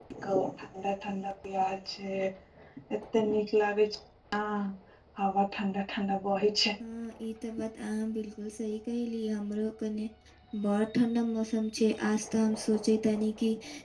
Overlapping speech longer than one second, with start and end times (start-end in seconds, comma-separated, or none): none